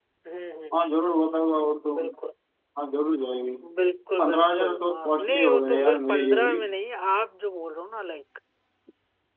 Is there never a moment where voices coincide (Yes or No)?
No